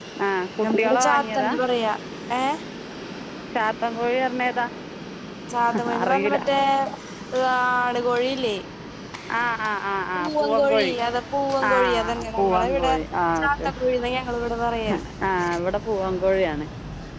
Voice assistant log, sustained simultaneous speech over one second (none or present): present